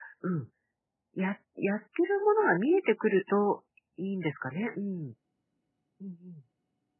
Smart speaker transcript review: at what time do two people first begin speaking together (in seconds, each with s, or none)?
none